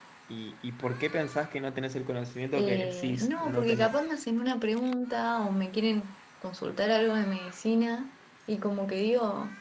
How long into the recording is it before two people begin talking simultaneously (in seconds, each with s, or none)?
2.5 s